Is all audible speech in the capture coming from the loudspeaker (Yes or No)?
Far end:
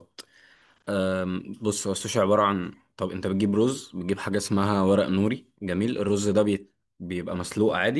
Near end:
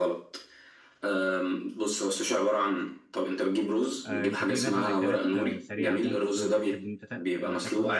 No